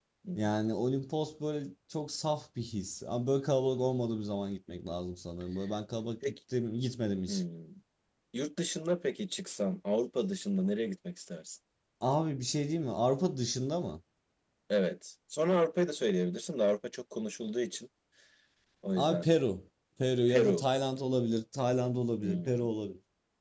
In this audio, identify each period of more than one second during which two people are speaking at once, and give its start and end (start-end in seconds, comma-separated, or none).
none